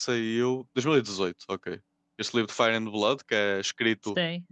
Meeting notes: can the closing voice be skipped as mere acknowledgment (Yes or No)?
Yes